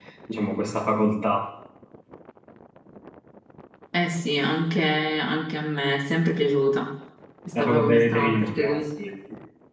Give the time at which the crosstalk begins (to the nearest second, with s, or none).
8 s